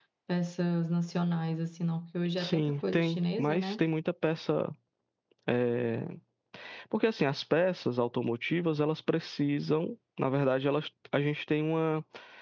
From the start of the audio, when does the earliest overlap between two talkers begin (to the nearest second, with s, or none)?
2 s